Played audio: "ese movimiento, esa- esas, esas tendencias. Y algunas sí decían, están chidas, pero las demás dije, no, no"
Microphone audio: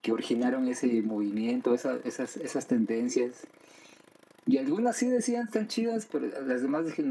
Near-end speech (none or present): none